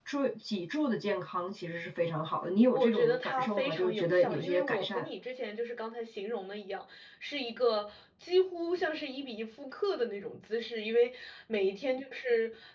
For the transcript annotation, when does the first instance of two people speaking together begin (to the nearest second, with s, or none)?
3 s